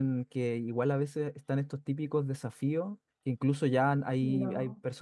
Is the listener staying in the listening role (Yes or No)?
Yes